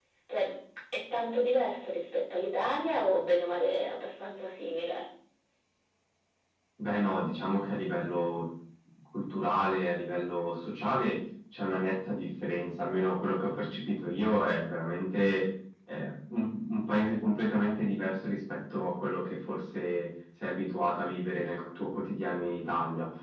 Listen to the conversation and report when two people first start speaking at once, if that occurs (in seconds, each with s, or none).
none